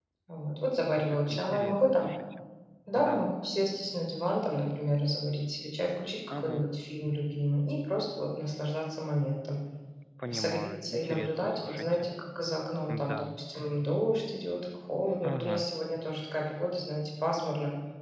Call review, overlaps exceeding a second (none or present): present